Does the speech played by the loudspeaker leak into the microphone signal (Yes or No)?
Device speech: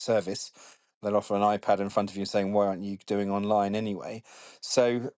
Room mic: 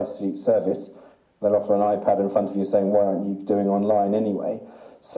Yes